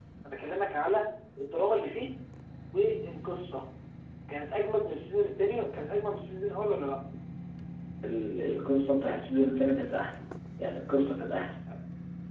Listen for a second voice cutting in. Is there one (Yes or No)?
No